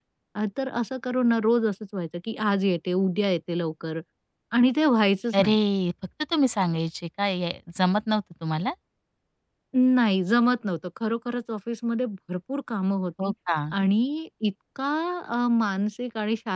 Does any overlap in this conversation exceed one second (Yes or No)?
No